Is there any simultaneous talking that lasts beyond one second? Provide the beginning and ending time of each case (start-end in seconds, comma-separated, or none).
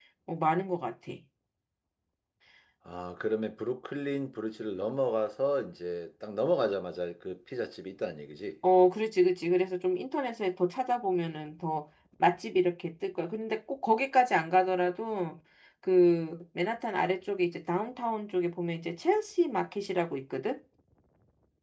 none